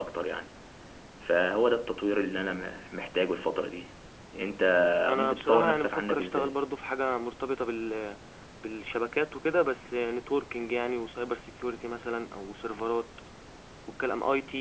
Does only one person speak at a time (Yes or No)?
No